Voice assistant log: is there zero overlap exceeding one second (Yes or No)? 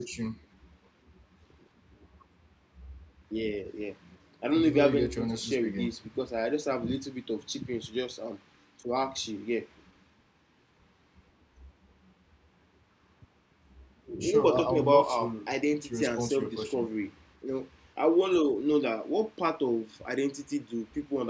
No